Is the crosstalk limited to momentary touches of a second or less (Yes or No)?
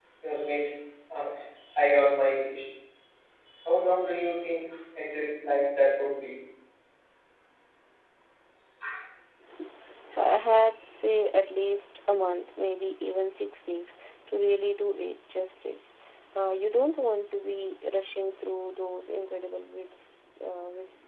Yes